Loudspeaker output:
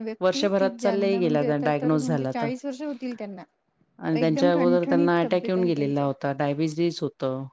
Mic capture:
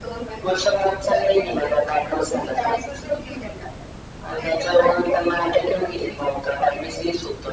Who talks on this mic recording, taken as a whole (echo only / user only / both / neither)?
echo only